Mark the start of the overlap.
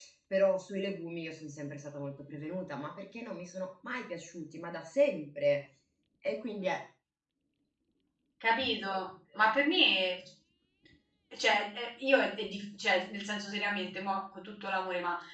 none

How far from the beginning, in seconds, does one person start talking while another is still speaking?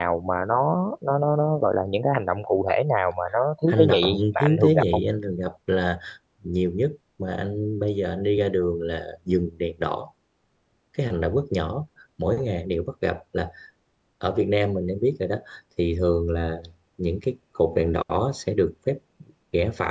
4 s

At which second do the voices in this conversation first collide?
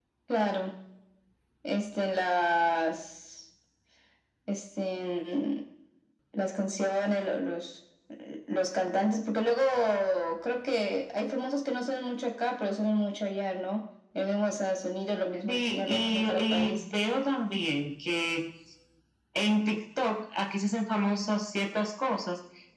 15 s

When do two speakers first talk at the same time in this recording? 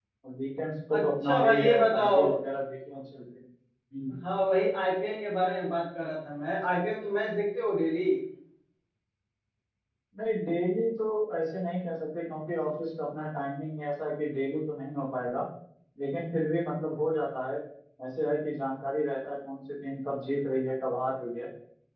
1 s

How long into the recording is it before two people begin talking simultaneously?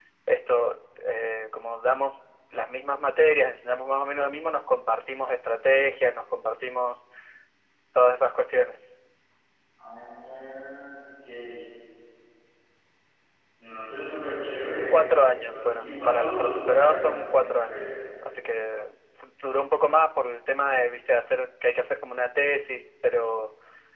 15 s

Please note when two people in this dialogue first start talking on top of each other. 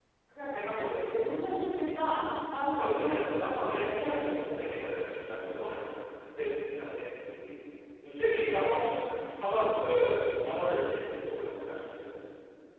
3 s

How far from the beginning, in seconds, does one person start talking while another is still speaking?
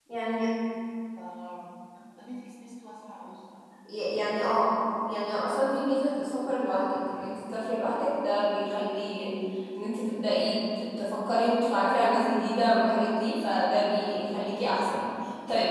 none

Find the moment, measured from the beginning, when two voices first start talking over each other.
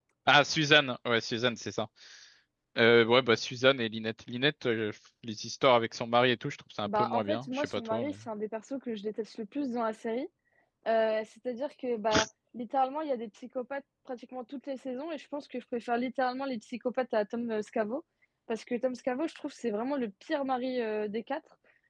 7 s

